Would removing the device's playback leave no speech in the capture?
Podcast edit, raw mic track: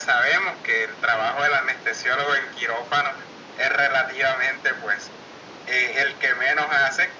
Yes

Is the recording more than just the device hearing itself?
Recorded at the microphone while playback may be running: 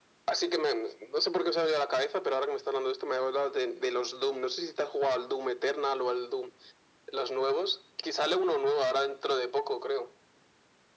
No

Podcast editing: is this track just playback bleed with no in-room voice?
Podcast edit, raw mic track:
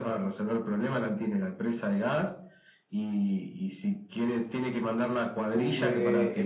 No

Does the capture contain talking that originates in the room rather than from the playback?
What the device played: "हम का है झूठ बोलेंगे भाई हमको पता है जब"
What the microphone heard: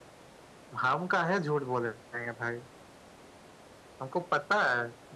No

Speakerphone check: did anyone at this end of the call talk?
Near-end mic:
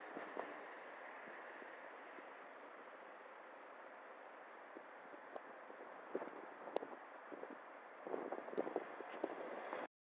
No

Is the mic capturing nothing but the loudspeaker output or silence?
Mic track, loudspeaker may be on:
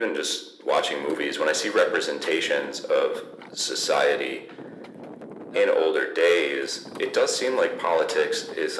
Yes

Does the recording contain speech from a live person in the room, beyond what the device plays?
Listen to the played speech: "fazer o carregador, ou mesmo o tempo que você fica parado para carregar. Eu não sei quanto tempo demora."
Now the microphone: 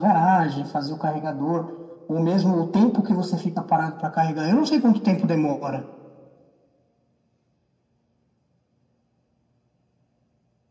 No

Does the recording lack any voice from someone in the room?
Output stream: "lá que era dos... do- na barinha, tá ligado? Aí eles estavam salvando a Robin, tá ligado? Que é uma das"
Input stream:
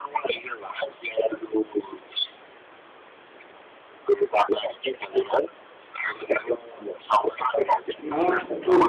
No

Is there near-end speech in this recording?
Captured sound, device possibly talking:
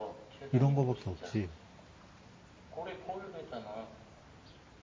Yes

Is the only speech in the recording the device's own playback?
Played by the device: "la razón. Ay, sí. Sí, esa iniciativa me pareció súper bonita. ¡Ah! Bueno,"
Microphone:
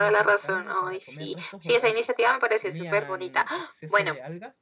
No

